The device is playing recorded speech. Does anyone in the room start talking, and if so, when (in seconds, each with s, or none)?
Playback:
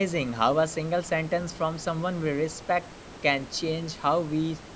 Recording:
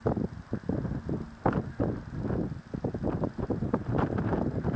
none